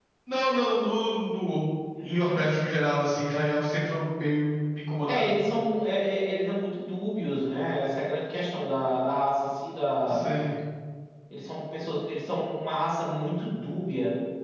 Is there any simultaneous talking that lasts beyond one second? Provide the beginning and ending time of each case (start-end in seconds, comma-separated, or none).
none